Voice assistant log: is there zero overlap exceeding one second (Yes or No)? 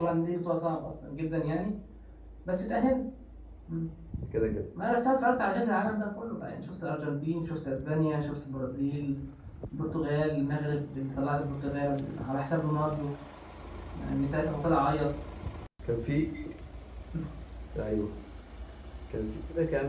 Yes